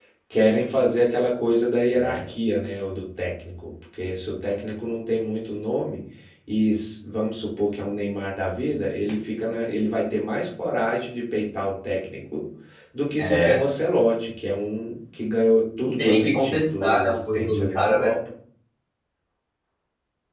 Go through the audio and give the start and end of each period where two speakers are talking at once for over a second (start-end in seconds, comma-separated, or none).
15.8-18.1